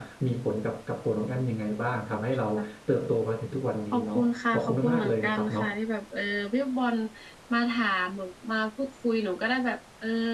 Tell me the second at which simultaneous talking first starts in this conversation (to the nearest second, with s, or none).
4 s